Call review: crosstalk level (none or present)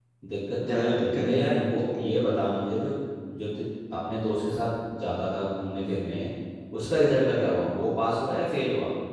present